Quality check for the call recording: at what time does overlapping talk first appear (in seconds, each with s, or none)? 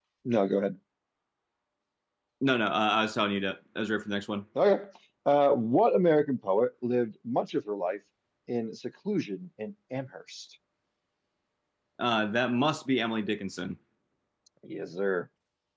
none